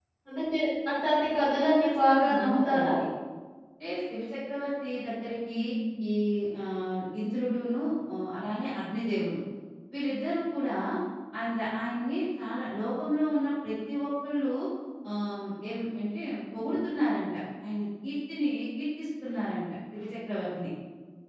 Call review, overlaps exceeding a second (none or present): present